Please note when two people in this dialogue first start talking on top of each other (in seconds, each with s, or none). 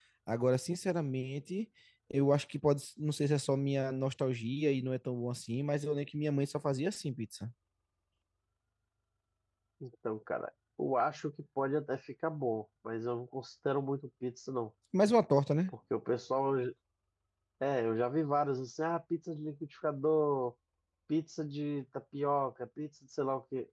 none